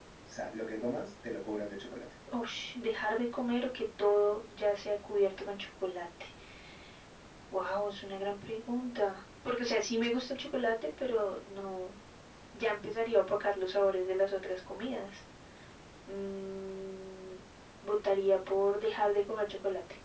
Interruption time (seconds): none

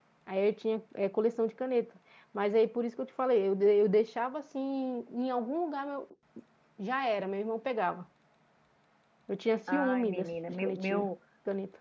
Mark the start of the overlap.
9.7 s

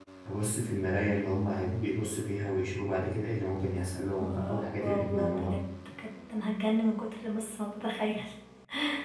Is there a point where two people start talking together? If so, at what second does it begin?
4.2 s

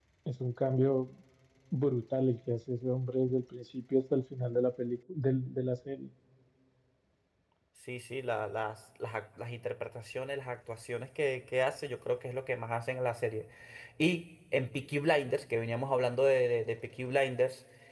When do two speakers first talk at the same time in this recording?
none

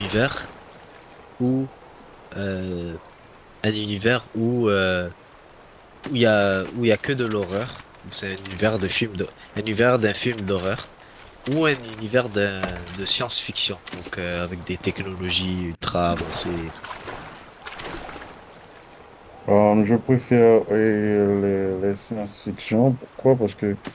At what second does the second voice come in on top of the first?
none

